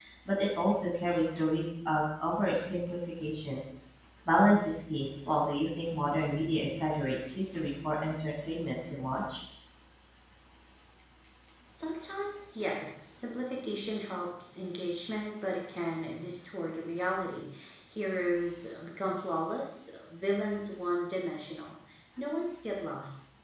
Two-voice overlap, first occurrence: none

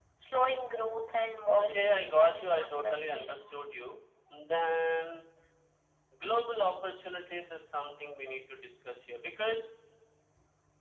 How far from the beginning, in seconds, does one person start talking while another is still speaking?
1.5 s

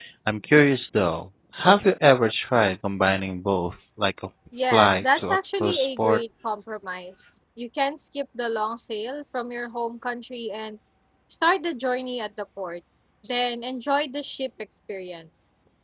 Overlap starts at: 4.5 s

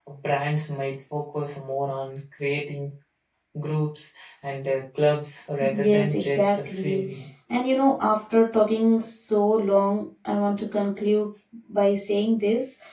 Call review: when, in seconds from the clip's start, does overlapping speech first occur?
5.6 s

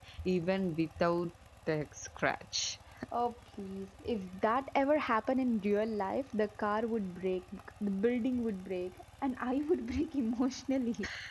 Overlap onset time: none

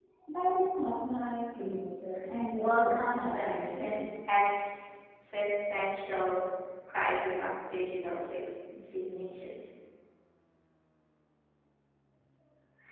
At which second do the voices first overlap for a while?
2.5 s

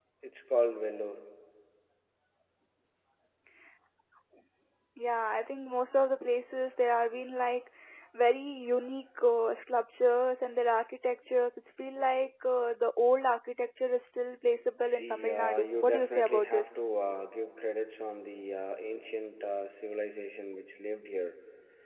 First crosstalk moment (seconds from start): 14.6 s

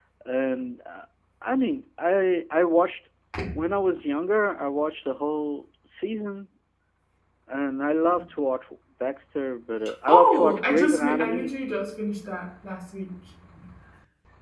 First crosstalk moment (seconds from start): 10.1 s

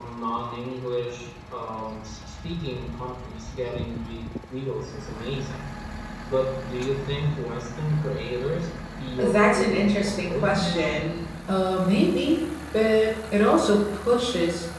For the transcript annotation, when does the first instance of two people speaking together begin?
9.2 s

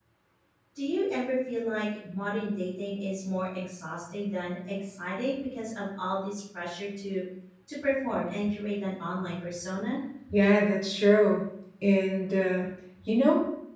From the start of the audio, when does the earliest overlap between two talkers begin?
none

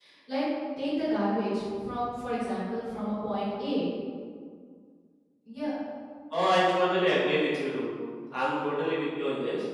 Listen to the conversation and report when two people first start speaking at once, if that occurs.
none

